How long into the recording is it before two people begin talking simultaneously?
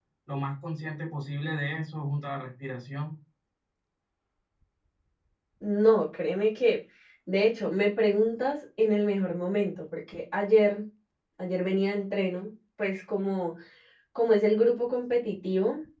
none

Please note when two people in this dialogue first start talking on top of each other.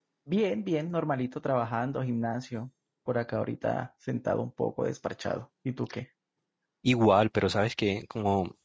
none

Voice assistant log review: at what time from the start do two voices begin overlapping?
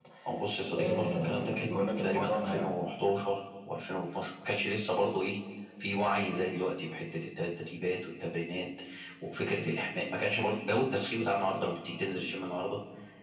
0.8 s

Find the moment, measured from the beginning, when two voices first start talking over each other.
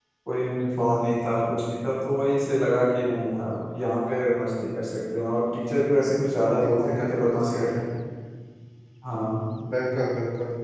6.6 s

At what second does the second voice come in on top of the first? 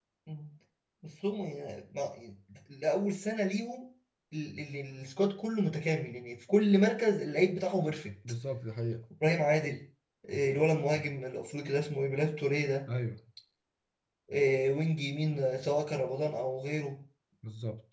none

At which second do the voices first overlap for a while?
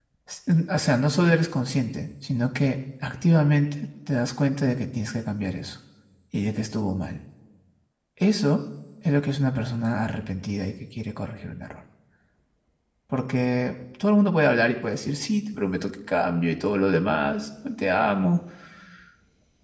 none

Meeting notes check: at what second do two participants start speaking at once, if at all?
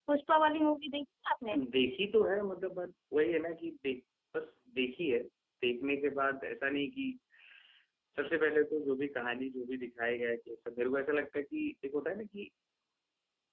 none

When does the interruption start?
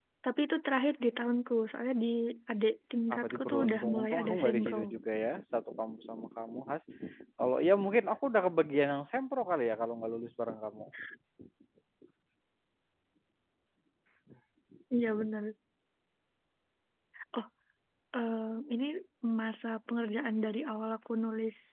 3.1 s

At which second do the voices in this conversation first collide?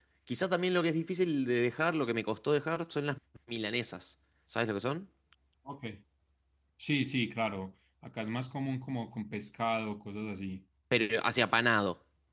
none

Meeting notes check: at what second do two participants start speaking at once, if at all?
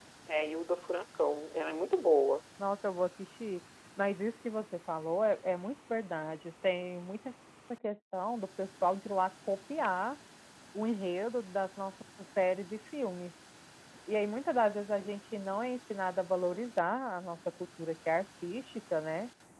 none

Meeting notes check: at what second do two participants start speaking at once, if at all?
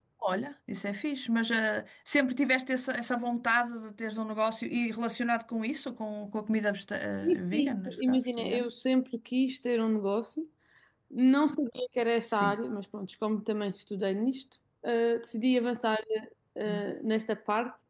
7.2 s

